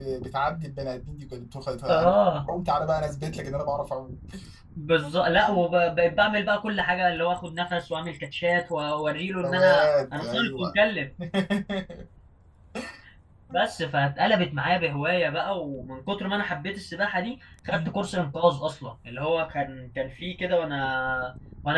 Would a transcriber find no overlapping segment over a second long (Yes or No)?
No